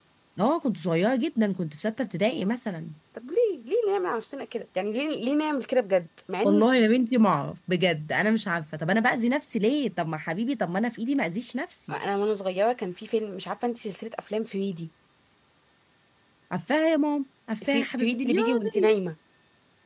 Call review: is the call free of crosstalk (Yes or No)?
No